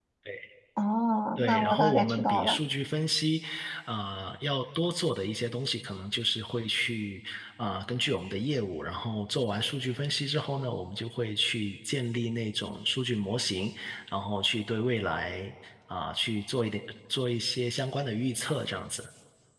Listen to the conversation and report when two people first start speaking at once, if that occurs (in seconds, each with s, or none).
1.4 s